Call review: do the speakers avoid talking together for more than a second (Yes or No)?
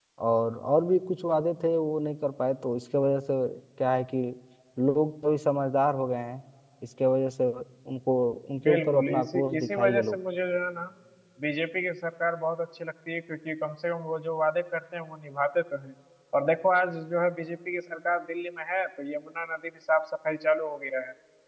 No